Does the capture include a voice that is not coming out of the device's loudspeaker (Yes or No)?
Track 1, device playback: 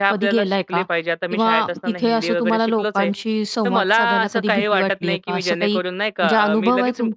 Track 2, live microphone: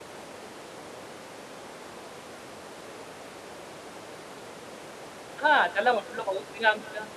Yes